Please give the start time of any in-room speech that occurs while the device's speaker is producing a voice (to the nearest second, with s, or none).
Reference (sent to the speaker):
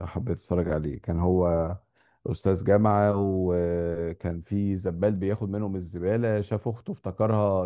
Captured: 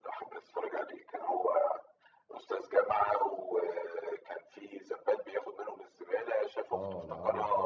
7 s